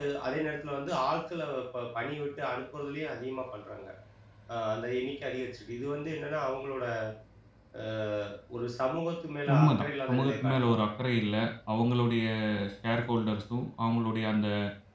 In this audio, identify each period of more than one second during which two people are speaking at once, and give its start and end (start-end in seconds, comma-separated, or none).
9.5-10.8